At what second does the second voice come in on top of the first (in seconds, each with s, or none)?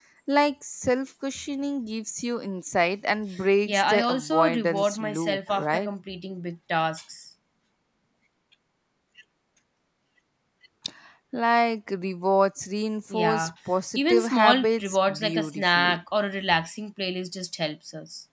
3.7 s